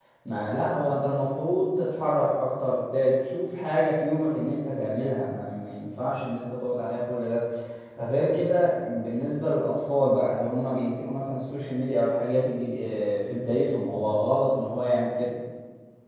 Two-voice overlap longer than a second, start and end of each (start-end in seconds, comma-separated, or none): none